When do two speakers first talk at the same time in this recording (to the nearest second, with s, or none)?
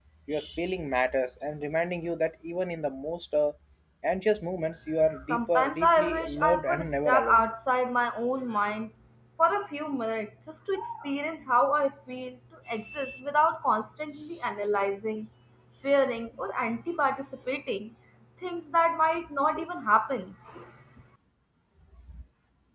5 s